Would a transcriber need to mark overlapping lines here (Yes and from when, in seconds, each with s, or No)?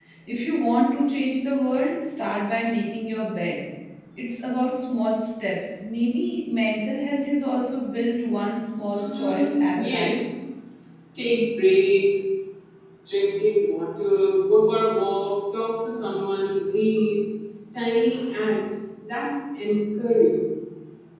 Yes, from 8.9 s